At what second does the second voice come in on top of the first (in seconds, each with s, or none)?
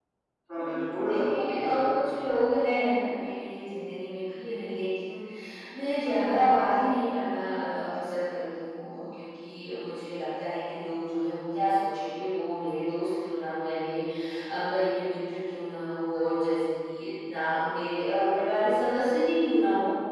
0.6 s